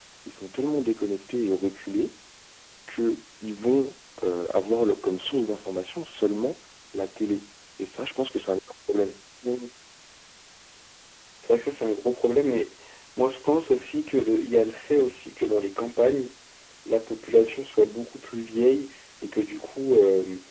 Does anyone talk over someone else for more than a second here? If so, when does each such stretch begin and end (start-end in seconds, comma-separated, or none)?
none